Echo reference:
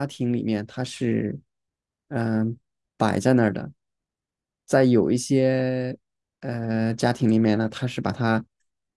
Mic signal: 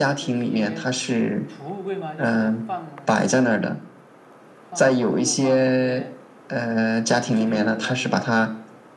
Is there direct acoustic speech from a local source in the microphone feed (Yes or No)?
Yes